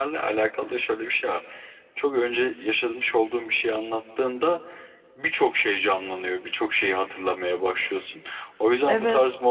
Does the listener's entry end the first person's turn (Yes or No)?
No